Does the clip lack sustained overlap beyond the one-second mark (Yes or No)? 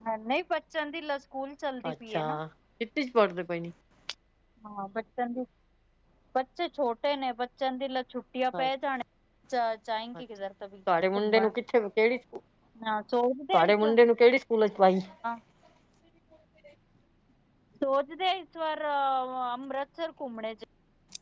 Yes